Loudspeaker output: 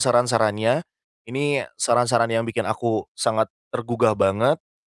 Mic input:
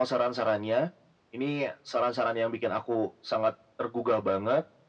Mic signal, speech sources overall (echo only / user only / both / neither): echo only